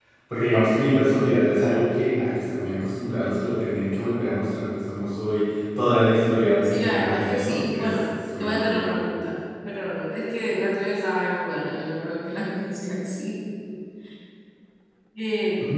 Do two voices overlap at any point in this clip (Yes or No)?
Yes